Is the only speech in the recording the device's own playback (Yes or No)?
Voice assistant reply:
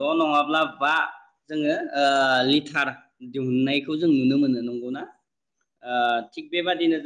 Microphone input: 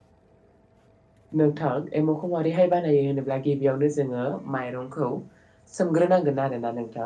No